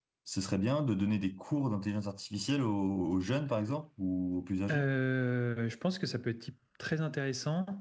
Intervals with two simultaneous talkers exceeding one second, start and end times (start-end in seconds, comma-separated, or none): none